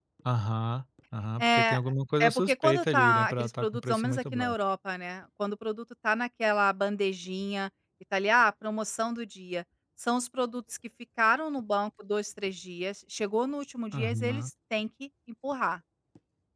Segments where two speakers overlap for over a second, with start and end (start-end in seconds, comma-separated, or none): 2.2-4.6